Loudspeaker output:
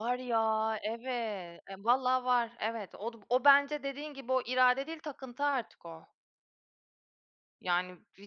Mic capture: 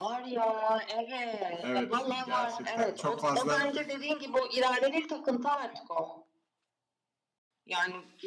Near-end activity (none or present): present